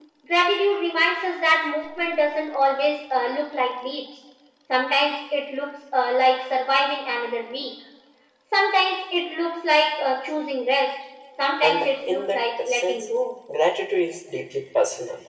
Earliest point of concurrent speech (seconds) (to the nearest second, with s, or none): 12 s